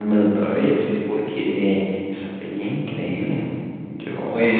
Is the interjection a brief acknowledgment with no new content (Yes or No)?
No